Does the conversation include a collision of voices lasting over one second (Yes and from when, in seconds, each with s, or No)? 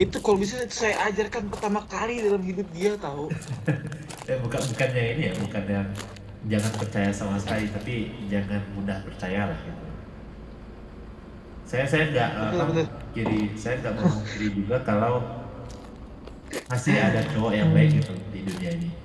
No